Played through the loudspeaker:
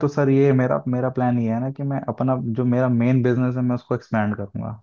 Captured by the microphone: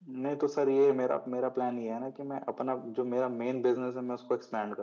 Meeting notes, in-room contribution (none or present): none